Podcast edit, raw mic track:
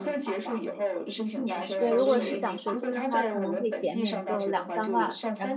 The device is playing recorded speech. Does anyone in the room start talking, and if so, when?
2 s

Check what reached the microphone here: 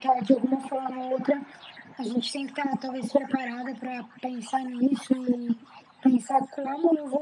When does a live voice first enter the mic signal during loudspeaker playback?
none

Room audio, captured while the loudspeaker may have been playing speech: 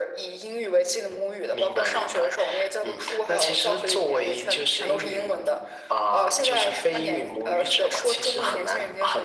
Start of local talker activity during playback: none

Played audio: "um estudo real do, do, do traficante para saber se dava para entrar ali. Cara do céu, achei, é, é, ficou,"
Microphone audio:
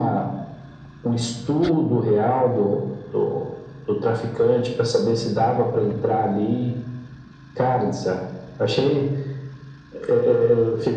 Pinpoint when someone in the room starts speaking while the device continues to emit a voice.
none

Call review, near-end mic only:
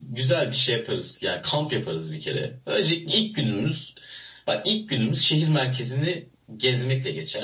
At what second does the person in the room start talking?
none

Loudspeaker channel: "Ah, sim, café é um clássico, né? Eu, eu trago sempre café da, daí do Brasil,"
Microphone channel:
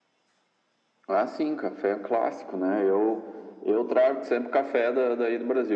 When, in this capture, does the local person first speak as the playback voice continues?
none

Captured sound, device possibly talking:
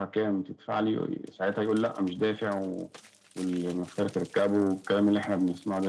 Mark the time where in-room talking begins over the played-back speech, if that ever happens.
none

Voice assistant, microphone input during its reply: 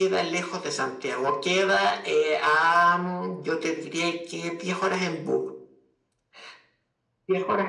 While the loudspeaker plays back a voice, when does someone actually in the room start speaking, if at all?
none

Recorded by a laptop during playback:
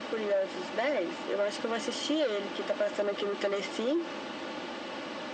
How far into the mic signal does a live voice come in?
none

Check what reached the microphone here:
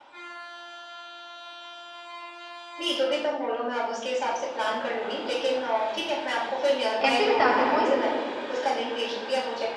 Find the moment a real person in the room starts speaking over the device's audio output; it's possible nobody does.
7 s

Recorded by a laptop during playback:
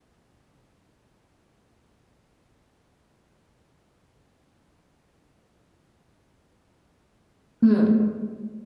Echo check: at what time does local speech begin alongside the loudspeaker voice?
8 s

